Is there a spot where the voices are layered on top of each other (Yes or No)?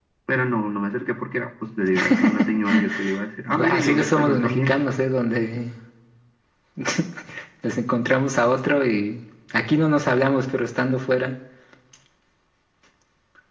Yes